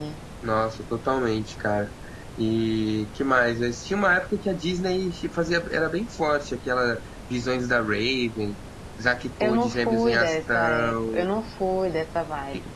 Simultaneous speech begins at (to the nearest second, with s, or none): 9 s